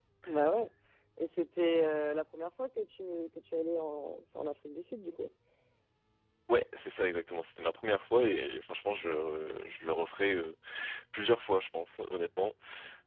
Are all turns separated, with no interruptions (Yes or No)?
Yes